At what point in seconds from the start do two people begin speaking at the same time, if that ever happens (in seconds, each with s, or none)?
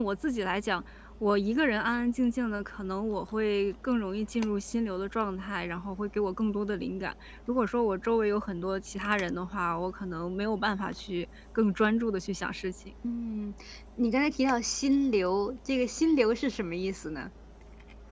none